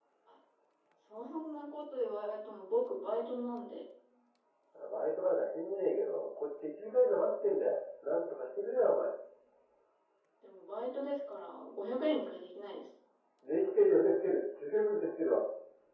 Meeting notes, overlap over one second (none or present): none